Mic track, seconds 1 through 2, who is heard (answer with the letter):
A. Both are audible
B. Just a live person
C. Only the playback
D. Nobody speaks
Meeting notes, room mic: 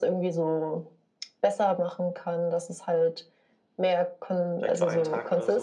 C